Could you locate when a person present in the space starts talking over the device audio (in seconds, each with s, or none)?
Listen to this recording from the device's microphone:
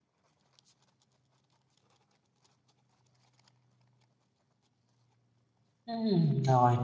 5.8 s